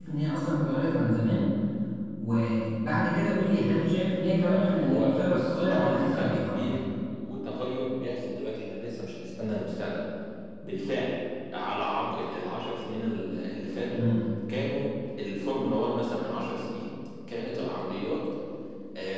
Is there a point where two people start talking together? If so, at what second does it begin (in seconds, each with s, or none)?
4.5 s